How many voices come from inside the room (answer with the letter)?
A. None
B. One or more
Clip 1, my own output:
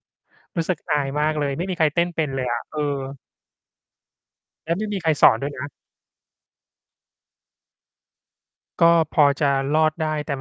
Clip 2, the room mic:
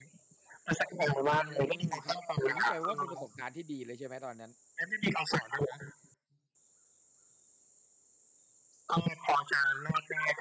B